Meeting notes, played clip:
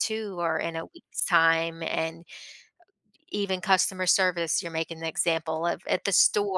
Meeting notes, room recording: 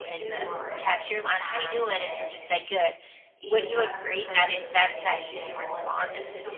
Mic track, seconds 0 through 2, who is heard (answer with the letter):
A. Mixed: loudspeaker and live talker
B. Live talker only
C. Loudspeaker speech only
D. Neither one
A